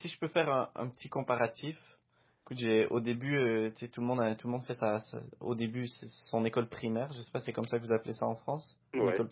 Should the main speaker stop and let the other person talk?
Yes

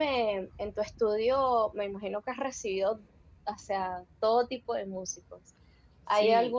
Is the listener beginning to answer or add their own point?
No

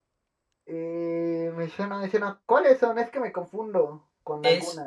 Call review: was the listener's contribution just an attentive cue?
No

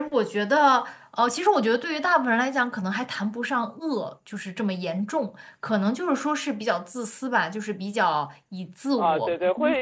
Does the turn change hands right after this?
Yes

